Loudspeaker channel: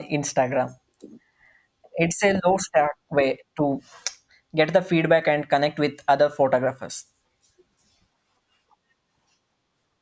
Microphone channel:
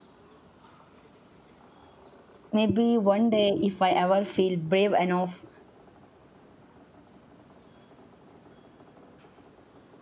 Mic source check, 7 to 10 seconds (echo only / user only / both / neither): neither